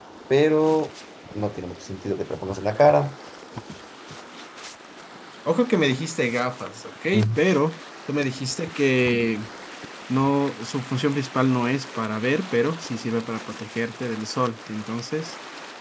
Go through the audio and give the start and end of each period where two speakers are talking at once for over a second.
none

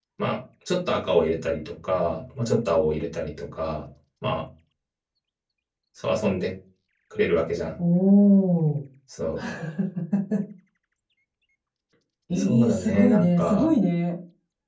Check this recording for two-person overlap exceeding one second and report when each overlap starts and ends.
12.4-13.7

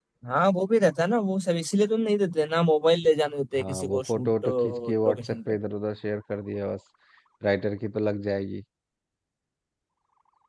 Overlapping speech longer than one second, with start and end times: 3.6-5.4

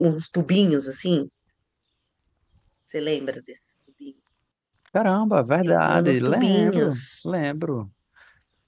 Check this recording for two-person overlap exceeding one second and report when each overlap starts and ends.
5.6-7.0

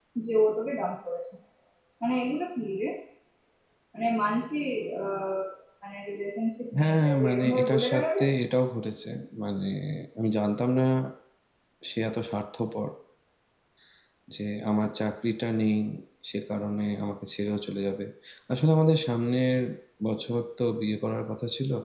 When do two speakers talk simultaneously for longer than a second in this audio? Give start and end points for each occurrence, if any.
6.7-8.2

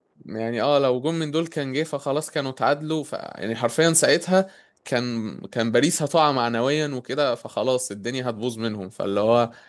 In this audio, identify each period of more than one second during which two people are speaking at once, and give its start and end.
none

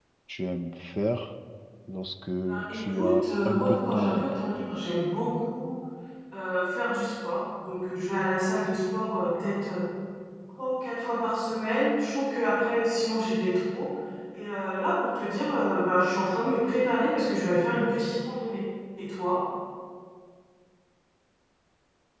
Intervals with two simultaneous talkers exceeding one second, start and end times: 2.7-4.5

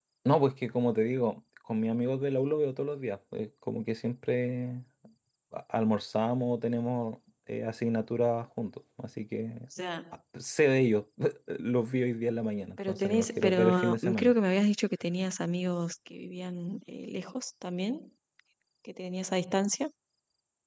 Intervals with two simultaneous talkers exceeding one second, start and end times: 12.9-14.3

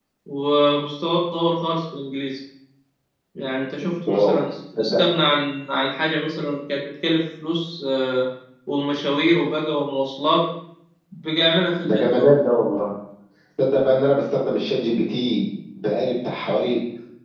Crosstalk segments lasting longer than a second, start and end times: none

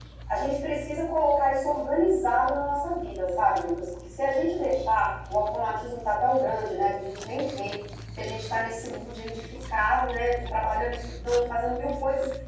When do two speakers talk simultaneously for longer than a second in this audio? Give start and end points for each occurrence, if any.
none

